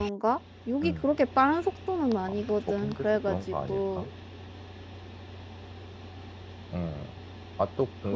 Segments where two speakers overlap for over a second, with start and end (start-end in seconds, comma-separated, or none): 2.2-4.1